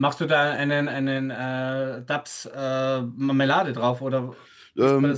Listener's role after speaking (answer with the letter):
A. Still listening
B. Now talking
B